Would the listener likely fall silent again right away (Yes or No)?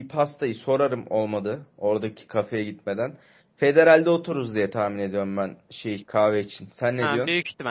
No